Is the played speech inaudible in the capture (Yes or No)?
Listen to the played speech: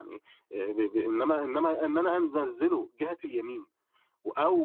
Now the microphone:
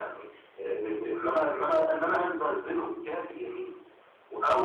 No